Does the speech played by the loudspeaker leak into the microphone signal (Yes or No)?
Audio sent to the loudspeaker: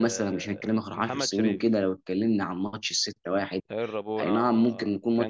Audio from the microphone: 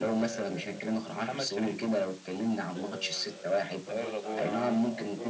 Yes